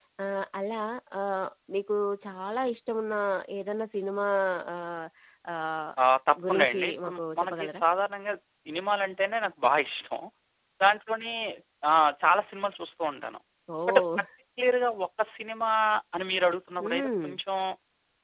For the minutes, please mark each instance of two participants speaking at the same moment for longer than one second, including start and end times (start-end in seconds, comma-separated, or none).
6.5-7.8